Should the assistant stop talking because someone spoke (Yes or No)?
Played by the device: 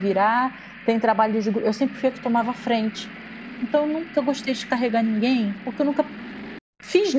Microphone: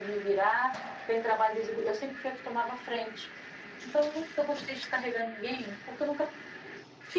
No